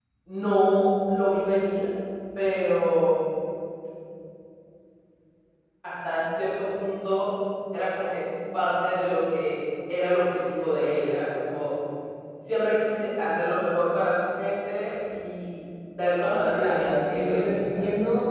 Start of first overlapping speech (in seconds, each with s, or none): 16.5 s